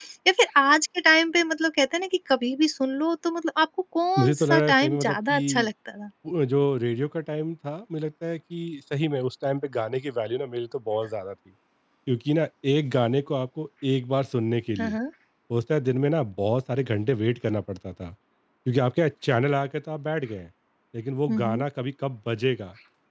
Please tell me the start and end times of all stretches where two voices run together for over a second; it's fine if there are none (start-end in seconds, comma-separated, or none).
4.2-5.7